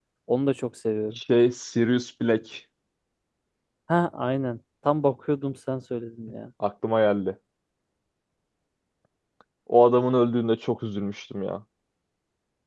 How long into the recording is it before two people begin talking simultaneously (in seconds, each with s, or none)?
none